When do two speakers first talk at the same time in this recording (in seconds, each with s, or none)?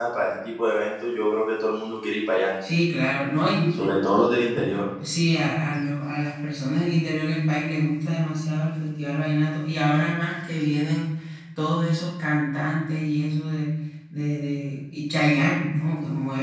none